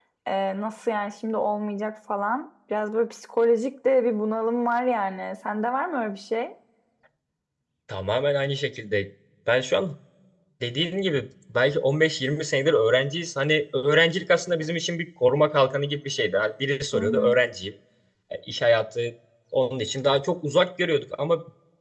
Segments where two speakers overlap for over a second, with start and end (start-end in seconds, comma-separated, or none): none